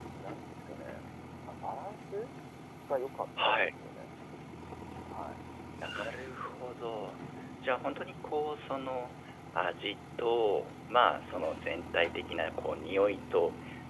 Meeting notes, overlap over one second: none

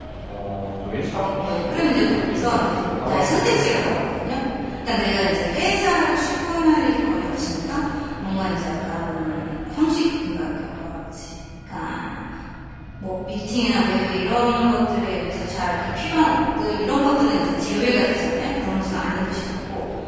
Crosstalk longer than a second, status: present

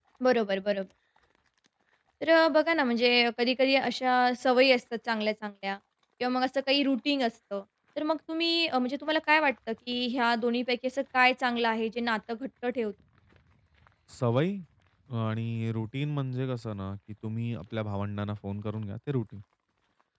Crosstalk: none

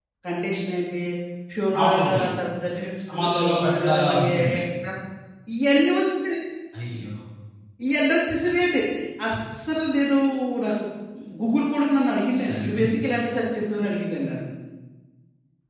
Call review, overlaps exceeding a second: present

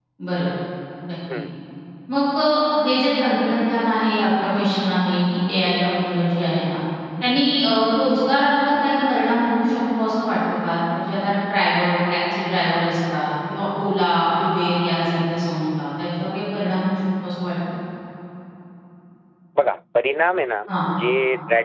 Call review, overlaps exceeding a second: none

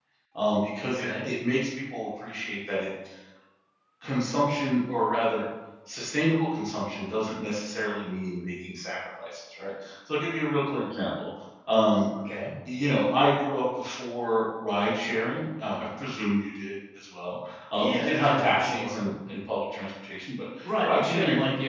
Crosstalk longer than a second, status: present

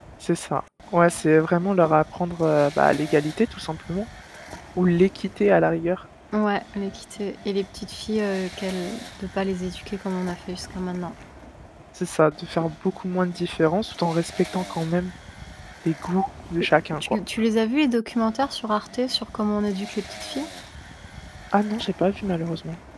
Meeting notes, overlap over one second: none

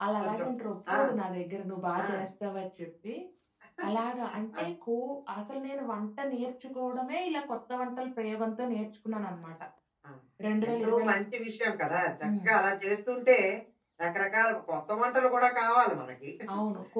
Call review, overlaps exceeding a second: none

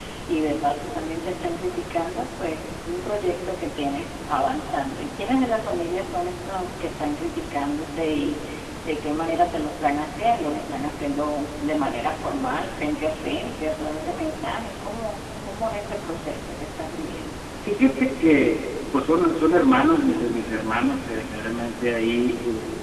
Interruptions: none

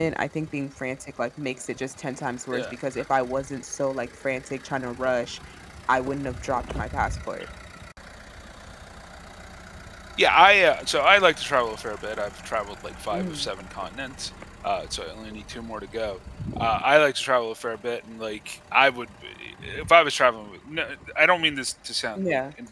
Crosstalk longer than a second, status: none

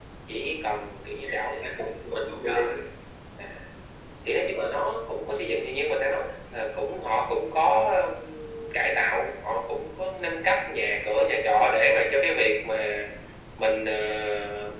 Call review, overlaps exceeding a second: present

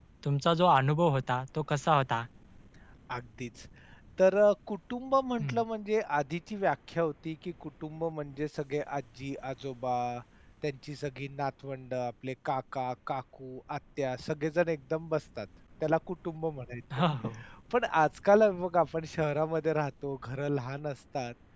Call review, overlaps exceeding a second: none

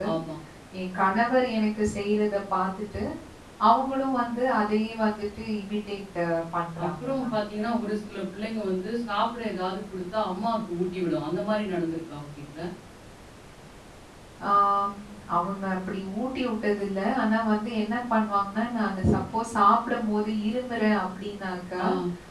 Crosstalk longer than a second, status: none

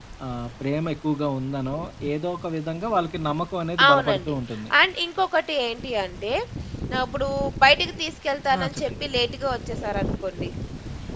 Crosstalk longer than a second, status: none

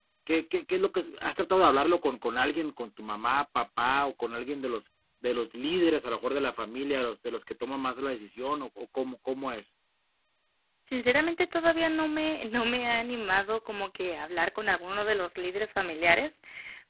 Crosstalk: none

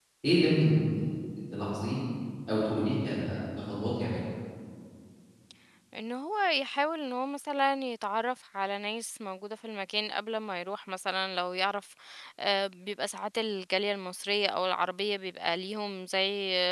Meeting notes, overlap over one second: none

